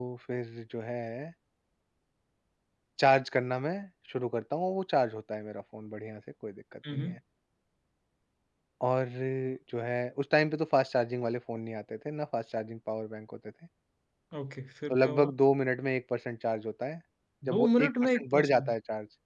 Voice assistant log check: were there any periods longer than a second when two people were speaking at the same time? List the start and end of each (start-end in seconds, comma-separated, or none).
17.5-18.7